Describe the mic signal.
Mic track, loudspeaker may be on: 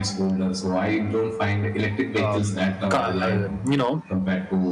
both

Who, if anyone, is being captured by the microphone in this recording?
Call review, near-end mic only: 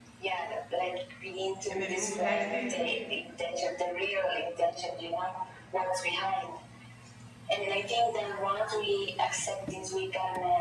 both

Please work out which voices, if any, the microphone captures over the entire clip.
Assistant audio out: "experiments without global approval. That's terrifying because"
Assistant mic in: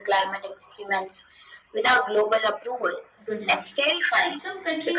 both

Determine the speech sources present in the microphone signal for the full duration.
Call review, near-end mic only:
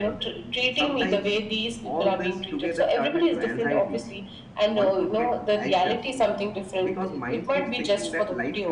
both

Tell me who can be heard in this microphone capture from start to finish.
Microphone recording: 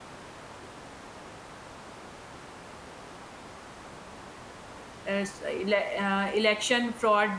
user only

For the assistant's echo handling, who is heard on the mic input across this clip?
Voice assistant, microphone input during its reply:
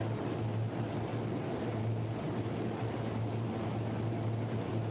neither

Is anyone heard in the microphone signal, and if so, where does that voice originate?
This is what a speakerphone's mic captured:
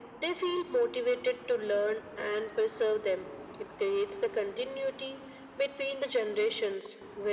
echo only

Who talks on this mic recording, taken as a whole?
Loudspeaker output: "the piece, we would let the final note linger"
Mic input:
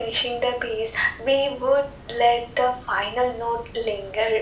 echo only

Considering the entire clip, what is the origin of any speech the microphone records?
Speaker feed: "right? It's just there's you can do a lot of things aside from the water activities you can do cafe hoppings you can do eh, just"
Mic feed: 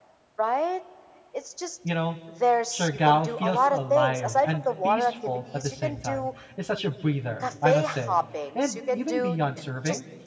both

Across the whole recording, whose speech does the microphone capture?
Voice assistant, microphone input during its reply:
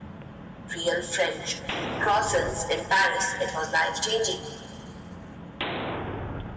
echo only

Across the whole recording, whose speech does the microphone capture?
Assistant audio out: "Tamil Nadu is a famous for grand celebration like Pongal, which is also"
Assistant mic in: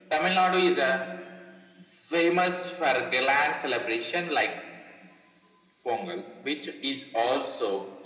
echo only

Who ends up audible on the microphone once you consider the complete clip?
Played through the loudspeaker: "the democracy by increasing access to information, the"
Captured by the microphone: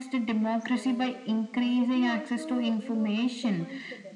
both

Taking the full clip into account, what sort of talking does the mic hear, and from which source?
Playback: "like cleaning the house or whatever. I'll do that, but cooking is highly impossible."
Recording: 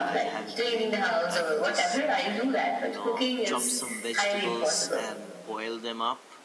both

